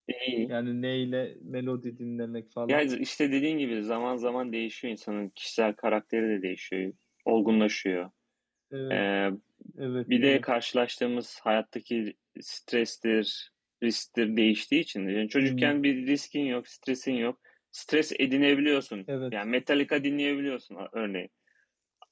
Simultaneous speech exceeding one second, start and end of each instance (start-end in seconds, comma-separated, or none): none